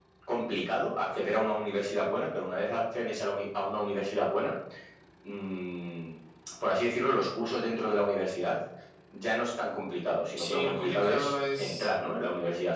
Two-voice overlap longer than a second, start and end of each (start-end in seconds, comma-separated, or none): 10.4-11.9